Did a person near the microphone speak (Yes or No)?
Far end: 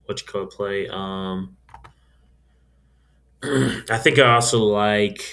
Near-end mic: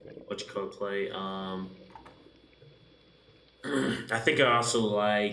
No